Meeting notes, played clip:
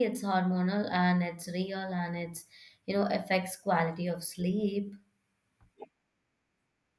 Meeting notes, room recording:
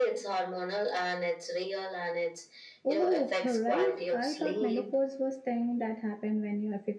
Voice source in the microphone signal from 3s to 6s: both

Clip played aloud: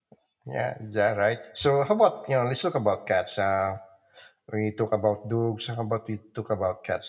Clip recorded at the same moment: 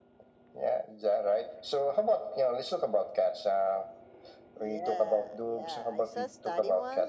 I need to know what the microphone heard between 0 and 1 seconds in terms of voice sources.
echo only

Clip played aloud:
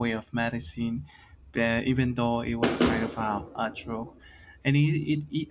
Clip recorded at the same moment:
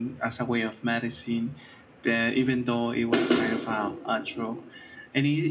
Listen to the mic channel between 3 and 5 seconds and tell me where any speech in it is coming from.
echo only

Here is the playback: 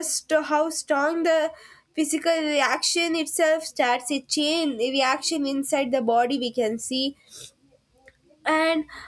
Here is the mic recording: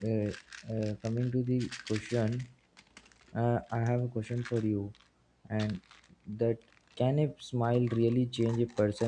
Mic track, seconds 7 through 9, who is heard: user only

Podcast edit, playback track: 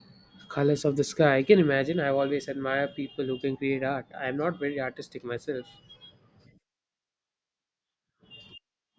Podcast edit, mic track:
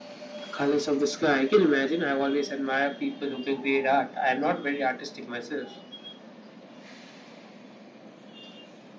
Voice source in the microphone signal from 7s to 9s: neither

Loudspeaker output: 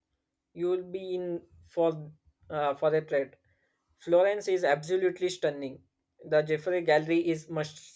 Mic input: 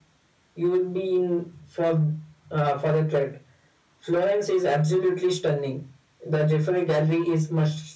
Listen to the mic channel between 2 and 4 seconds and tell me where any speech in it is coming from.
echo only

